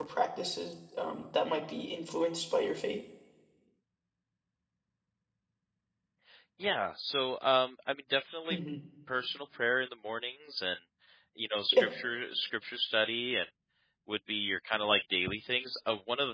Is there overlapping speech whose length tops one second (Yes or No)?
No